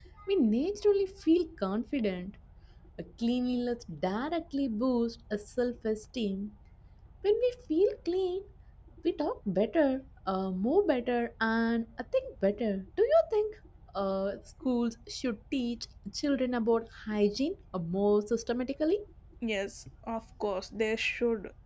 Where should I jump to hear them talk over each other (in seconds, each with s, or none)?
none